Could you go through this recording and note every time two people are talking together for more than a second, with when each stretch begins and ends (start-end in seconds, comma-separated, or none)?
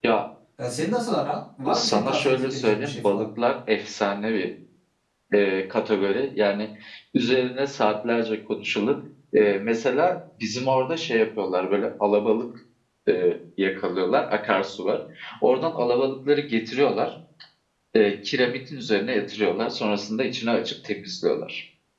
1.7-3.3